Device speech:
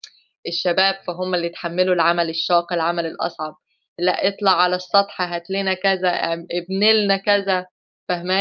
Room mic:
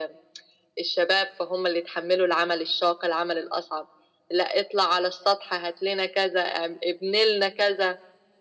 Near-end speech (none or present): none